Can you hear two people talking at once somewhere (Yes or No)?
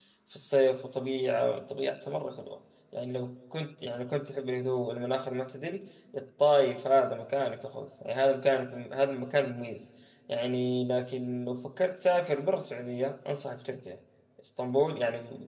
No